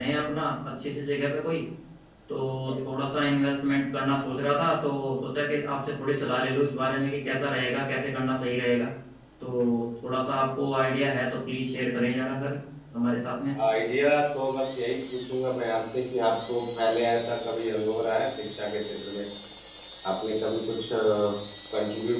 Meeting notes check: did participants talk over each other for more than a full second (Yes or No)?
No